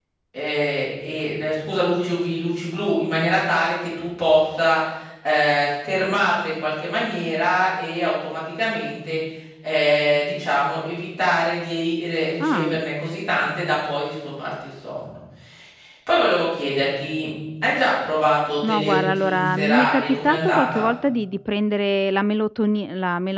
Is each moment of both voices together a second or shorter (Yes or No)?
No